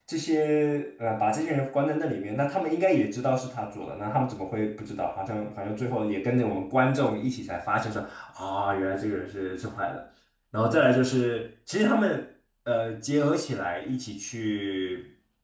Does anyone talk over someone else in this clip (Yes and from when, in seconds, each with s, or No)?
No